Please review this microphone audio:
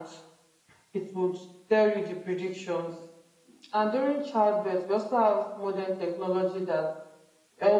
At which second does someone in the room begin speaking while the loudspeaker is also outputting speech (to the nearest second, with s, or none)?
none